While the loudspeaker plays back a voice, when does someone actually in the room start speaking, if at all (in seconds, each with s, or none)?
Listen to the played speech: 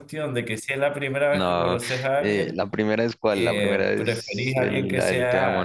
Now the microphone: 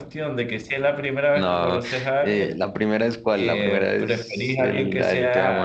none